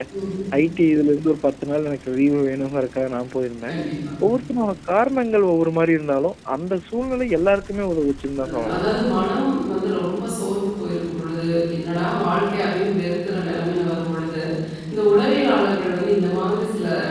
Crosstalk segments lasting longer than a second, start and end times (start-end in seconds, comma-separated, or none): none